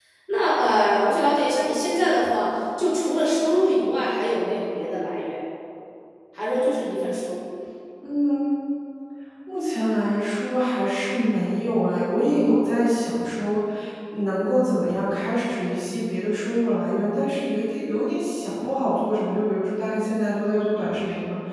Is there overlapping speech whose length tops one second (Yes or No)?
No